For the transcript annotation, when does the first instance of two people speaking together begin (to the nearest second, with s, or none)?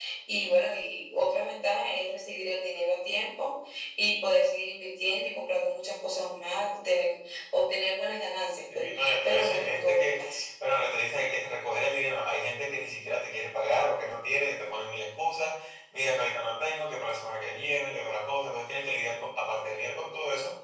9 s